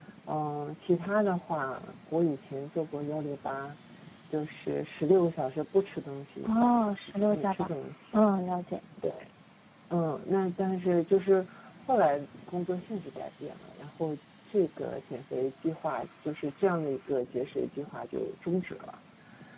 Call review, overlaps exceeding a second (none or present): present